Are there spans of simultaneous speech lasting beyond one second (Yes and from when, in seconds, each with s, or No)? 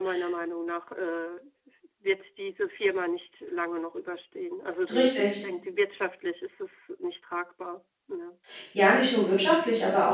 No